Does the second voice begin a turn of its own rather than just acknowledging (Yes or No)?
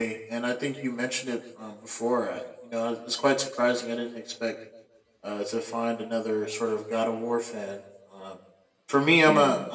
No